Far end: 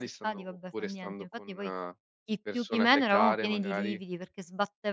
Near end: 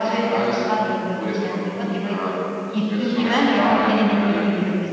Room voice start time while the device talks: none

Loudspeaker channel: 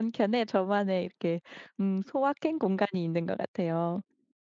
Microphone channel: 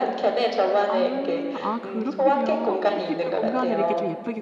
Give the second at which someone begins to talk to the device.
0.9 s

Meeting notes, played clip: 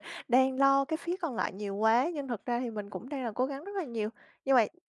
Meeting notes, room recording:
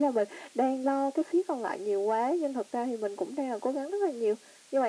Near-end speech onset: none

